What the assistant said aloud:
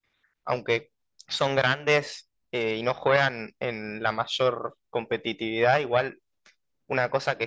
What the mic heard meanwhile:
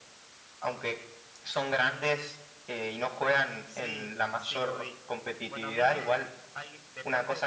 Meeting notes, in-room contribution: present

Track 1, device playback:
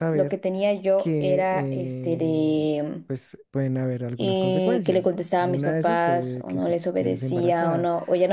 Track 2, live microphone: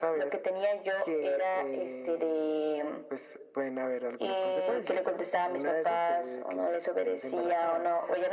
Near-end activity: none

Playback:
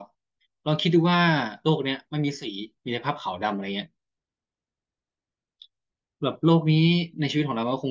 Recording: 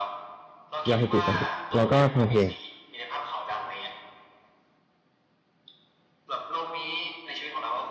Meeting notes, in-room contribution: present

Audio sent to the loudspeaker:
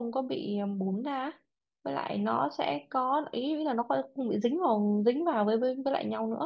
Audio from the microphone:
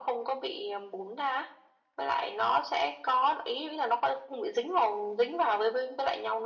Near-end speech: none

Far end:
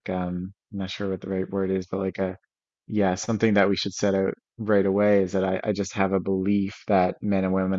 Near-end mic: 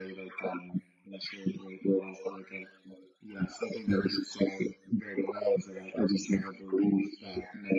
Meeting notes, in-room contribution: none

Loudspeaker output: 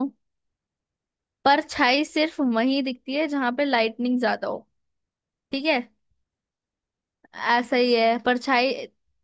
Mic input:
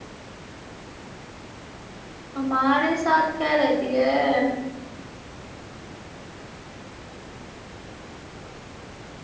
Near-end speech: present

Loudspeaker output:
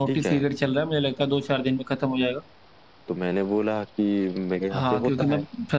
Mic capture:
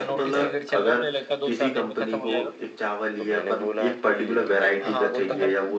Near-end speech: present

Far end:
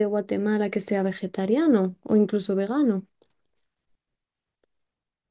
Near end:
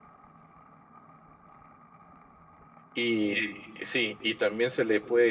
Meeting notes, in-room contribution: present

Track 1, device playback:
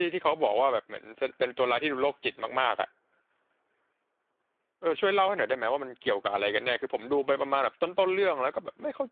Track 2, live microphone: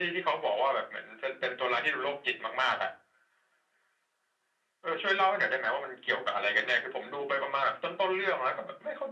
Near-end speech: none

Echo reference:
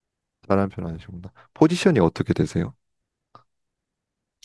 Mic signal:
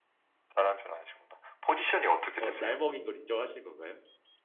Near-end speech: present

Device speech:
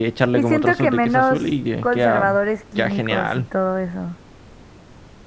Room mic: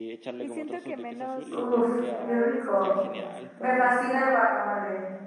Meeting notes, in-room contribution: present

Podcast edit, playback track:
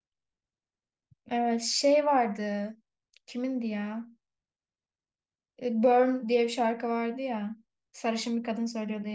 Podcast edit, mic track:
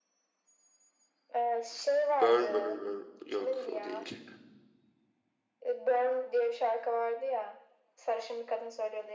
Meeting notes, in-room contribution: present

